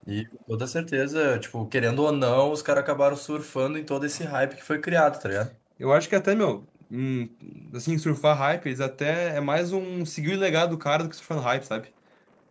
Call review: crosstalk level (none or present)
none